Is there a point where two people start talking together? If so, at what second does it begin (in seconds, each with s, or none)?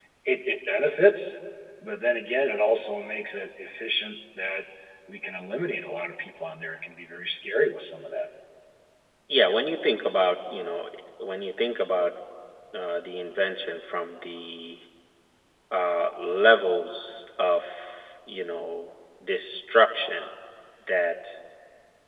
none